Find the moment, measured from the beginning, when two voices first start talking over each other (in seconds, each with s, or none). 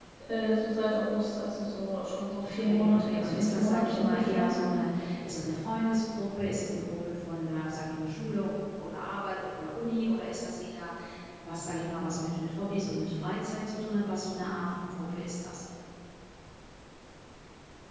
2.4 s